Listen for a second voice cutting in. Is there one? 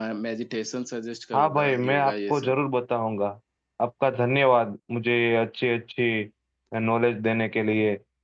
Yes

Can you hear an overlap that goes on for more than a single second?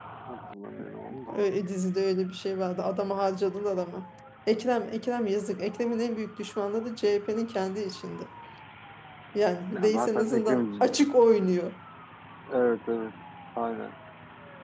Yes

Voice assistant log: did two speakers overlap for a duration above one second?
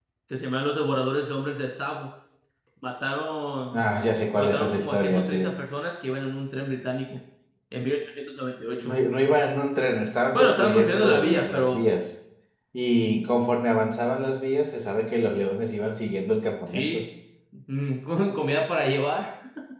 Yes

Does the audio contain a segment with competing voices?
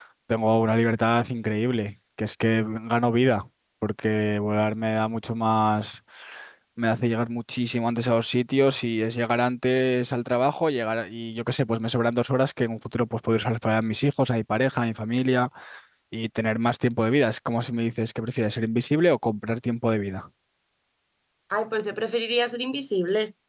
No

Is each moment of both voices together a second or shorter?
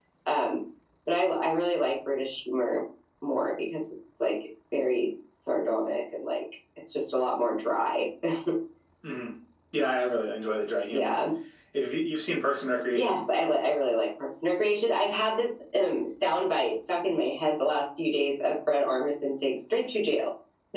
Yes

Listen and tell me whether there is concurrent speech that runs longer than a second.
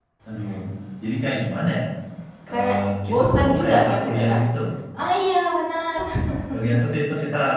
Yes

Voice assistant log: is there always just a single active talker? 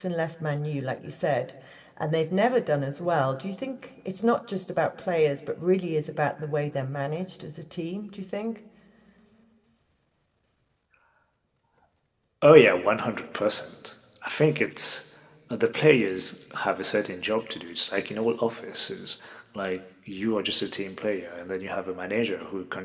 Yes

